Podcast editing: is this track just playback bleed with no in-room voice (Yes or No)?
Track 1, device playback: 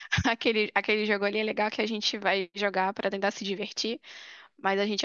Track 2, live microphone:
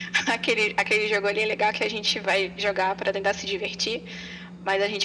Yes